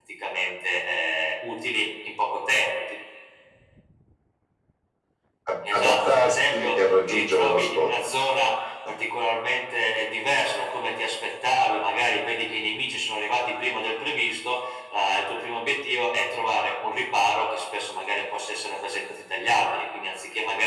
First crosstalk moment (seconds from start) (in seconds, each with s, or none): 5.7 s